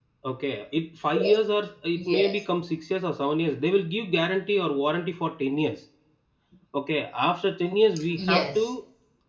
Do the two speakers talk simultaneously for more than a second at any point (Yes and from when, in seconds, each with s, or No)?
No